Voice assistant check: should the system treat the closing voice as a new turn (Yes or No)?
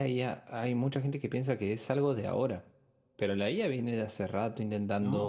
No